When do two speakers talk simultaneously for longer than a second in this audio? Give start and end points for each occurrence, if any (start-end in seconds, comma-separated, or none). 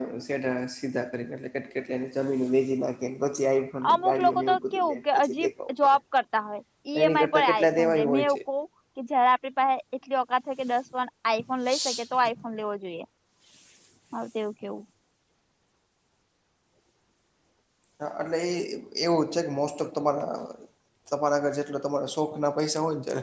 3.9-6.0, 7.0-8.4